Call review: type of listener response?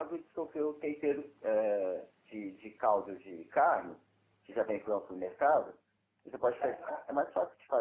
listening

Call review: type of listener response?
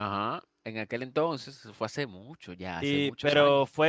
taking over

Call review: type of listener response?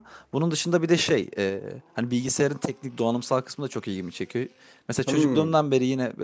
listening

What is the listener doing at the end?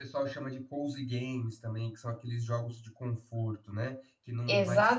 taking over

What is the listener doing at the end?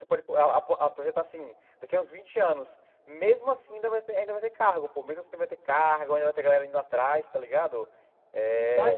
taking over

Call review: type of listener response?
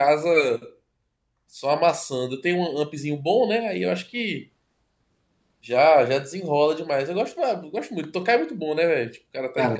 taking over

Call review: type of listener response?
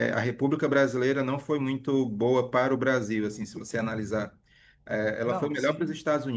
listening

